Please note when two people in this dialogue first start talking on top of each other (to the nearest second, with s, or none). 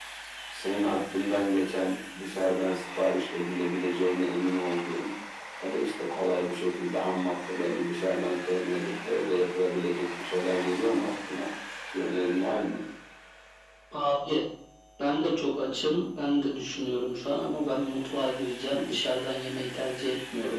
none